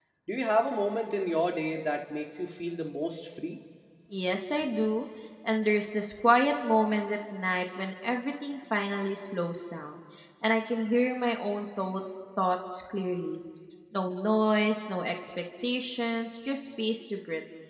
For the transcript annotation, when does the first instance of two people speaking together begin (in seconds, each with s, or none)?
none